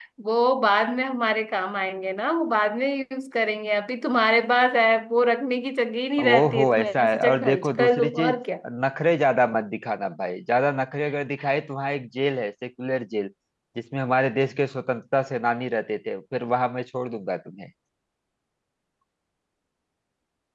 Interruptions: present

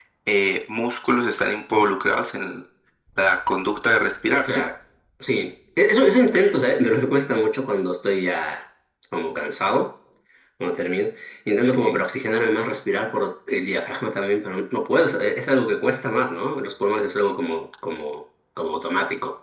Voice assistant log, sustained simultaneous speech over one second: none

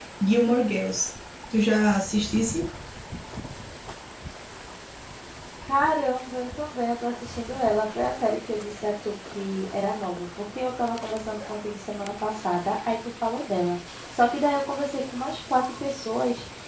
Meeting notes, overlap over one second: none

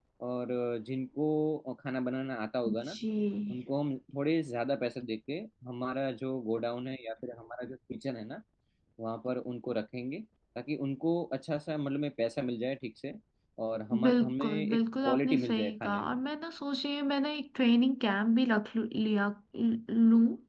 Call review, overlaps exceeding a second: present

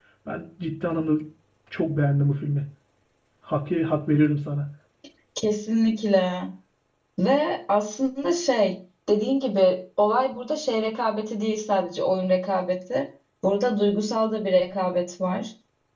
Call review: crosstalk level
none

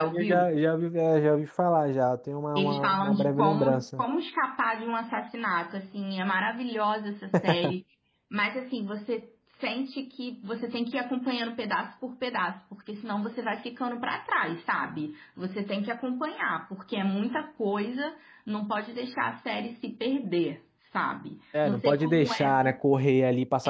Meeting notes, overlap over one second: present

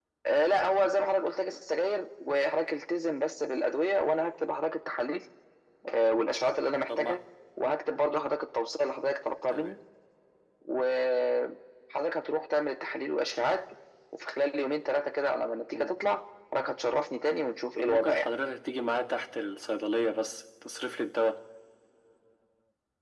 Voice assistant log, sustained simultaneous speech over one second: none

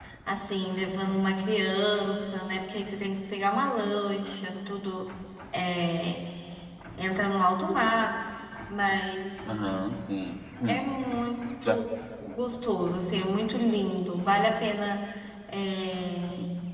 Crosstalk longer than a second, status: none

